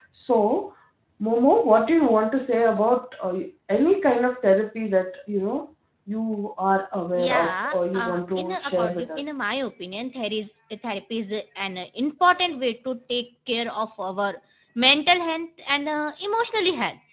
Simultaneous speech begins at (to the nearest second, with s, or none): 7 s